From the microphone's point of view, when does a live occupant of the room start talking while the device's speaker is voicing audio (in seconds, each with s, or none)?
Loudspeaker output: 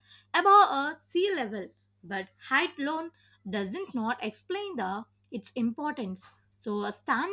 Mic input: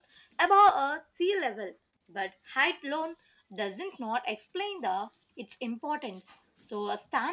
none